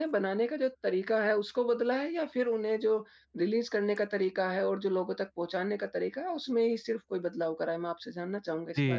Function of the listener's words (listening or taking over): taking over